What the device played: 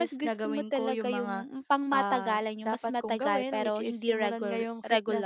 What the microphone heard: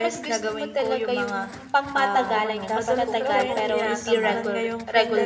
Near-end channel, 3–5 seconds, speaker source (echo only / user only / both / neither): both